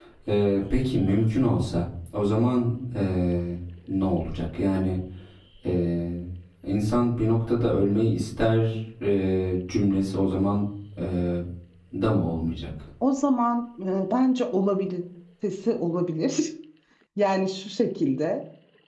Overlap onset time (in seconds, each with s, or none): none